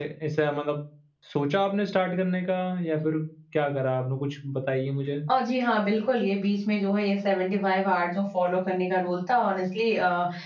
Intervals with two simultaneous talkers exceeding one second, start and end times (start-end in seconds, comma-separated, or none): none